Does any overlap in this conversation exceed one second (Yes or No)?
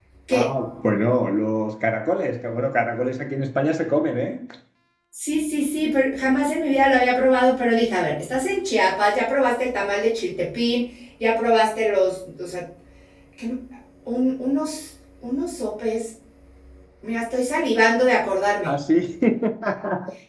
No